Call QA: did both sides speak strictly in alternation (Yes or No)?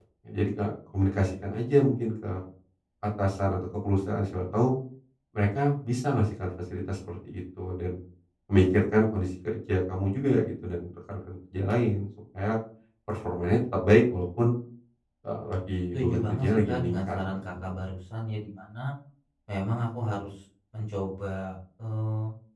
No